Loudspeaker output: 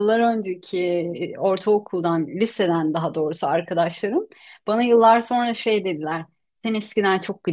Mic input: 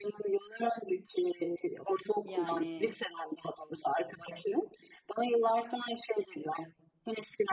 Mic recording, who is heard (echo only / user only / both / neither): both